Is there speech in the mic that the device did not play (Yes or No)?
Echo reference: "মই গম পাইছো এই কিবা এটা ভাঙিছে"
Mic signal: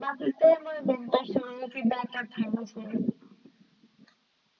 No